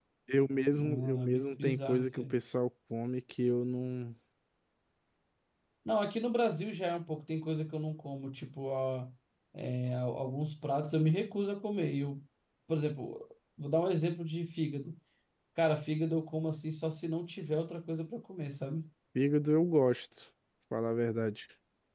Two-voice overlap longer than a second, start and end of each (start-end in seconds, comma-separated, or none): 0.7-2.4